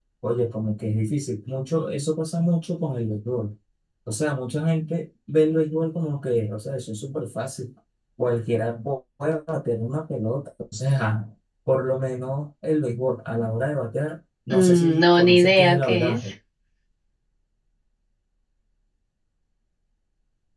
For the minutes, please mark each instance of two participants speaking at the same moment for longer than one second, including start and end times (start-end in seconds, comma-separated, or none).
14.5-16.2